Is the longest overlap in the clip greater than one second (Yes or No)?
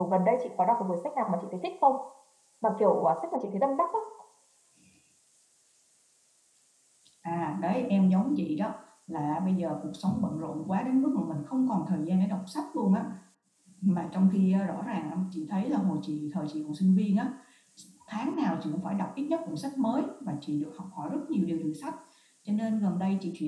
No